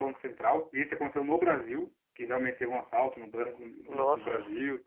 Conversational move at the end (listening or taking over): listening